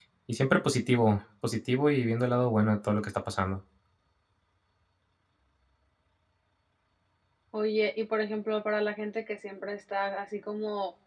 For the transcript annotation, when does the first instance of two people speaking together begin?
none

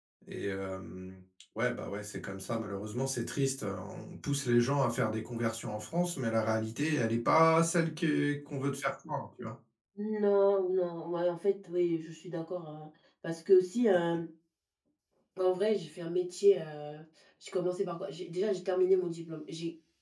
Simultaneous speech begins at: none

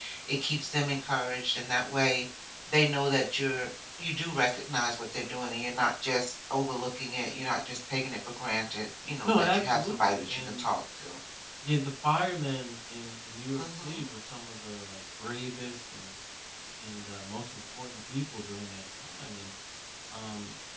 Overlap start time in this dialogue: 9 s

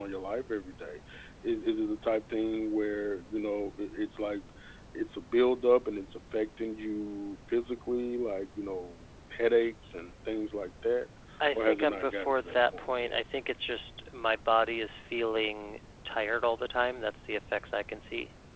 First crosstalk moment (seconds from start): 12 s

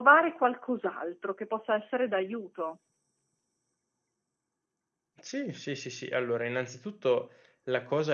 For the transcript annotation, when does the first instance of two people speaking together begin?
none

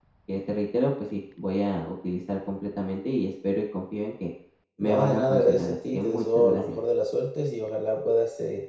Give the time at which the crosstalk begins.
5 s

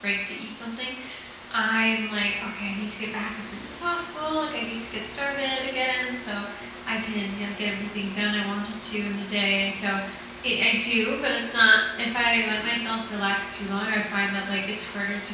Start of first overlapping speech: none

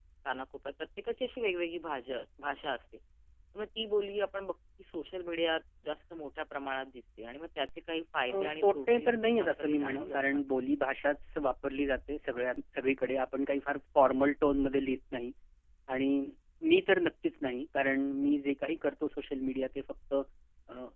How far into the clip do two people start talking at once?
8 s

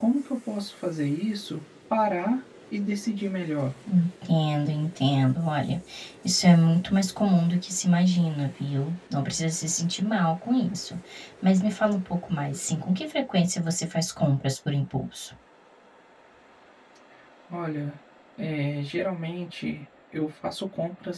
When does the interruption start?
none

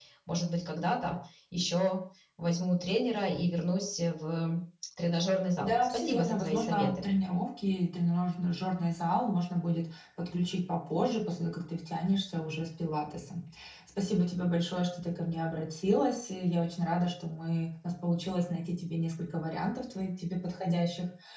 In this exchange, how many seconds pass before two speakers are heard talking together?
6 s

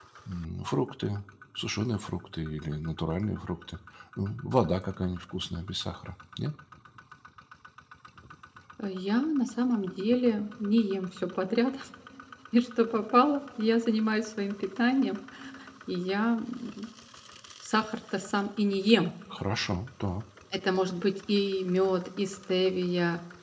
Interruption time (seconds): none

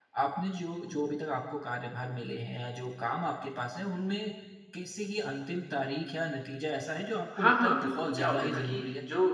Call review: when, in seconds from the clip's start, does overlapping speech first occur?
7 s

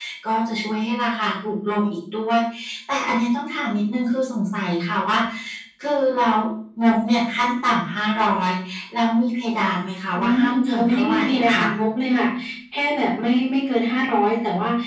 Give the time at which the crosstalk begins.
10 s

